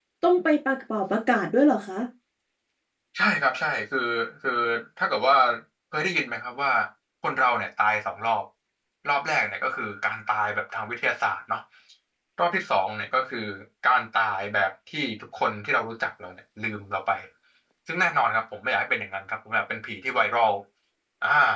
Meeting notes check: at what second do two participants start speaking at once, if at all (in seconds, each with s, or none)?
none